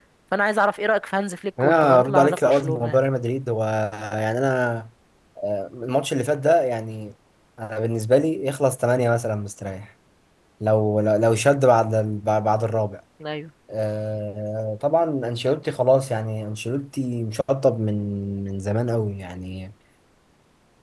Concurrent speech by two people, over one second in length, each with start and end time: 1.6-3.0

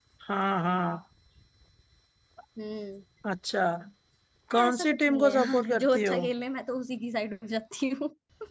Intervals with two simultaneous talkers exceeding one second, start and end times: 4.7-6.2

